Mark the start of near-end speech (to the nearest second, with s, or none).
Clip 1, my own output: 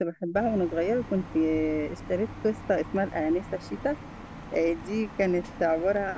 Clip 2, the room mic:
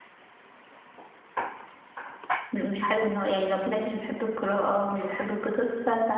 3 s